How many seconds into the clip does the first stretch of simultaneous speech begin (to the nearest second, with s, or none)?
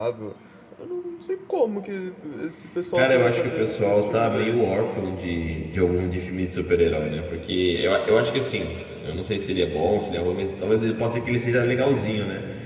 3 s